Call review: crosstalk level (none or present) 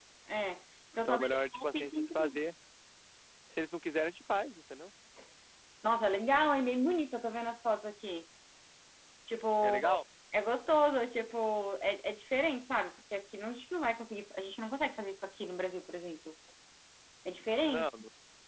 present